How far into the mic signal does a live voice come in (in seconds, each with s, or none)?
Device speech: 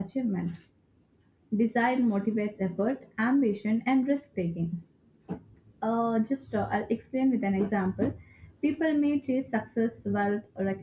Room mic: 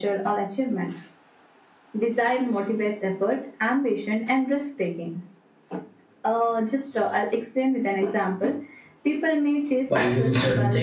9.9 s